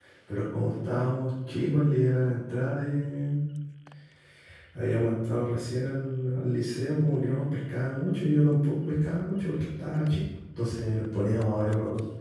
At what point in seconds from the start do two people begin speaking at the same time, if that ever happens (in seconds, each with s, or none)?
none